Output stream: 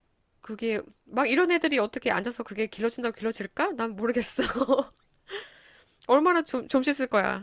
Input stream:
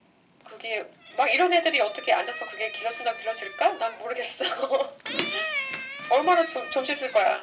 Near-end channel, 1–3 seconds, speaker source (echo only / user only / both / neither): echo only